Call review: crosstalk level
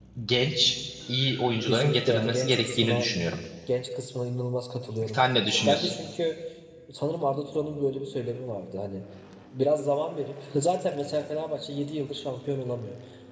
present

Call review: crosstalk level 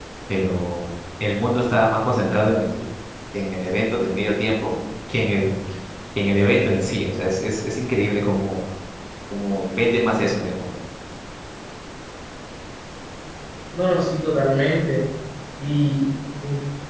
none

